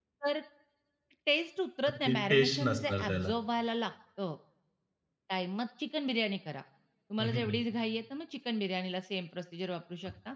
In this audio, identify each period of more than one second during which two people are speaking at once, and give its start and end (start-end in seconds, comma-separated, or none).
2.1-3.3